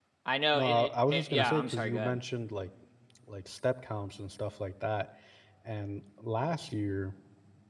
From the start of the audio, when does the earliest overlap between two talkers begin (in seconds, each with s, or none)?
0.5 s